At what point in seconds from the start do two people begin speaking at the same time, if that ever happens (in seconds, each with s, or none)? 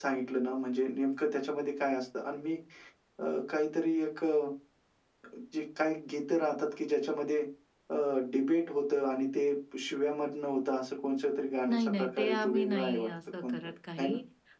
11.7 s